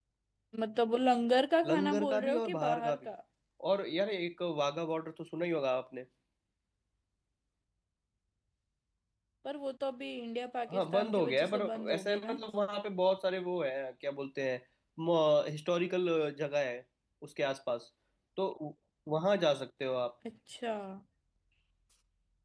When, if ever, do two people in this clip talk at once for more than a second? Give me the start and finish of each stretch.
1.6-3.1, 10.7-12.4

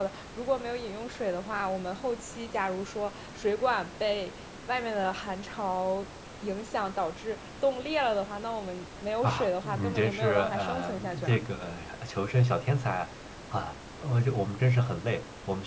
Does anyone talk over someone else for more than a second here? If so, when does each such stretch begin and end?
9.2-11.4

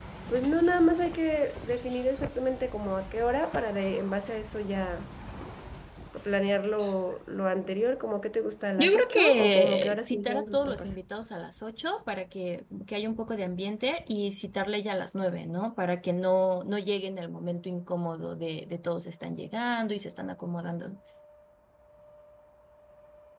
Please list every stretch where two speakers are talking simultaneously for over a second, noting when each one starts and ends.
8.8-10.9

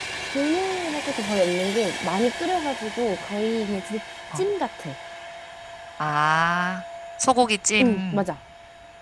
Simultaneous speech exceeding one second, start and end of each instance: none

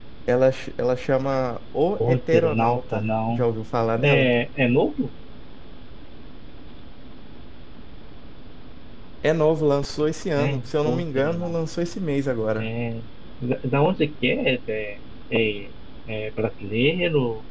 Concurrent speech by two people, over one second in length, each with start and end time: 2.0-3.5, 10.4-11.6

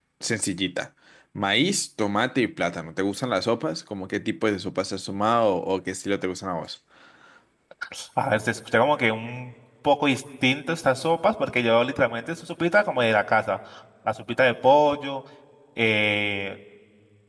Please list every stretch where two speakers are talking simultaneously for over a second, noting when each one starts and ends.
none

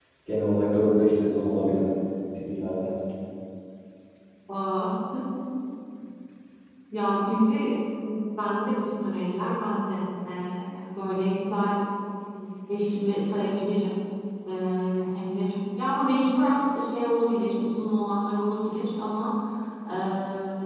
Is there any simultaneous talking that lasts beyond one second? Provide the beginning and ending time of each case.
none

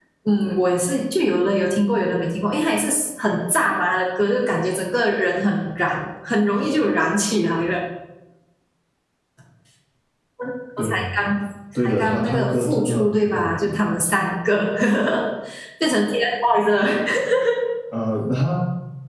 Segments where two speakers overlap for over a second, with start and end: 11.8-13.8

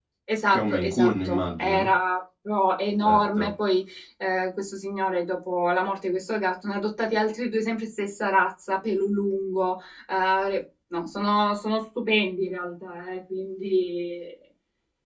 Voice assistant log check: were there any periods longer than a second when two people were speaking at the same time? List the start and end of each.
0.5-1.9

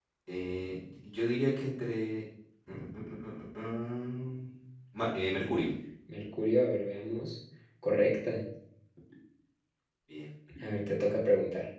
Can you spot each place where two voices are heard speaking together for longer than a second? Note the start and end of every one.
none

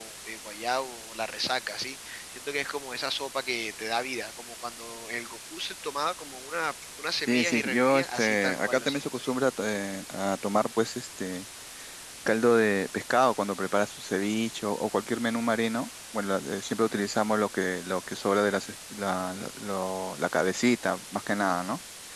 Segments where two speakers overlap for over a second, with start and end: 7.3-9.3

